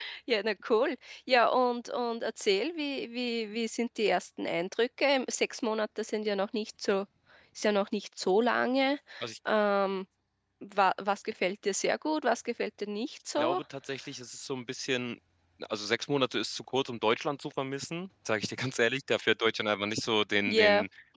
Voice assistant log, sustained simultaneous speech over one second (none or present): none